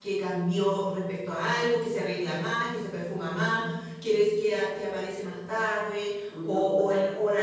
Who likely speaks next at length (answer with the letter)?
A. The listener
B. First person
B